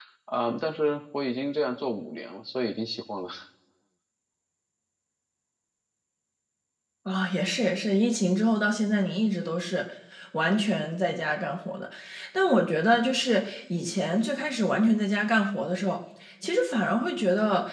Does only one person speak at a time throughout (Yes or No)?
Yes